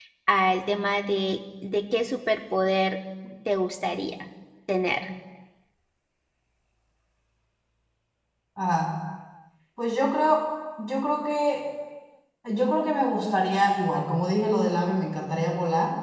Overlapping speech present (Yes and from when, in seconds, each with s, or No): No